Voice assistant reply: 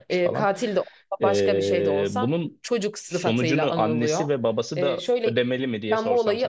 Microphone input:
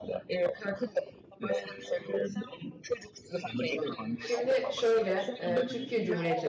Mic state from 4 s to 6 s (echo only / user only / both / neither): both